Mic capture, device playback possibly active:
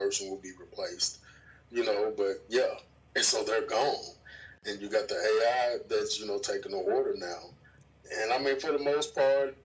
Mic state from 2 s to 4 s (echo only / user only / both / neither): echo only